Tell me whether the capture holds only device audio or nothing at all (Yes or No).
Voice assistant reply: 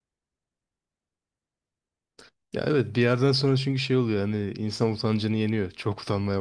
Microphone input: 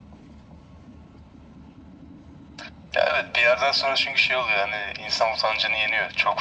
Yes